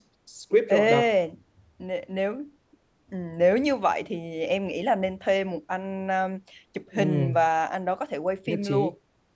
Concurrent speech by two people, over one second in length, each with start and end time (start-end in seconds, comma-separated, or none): none